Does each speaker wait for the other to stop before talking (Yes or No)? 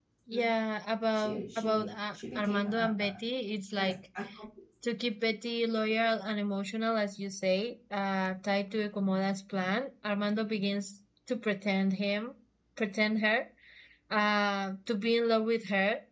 No